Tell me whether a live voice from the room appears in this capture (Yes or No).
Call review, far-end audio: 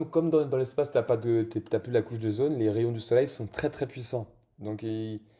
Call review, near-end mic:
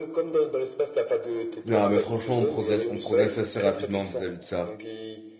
Yes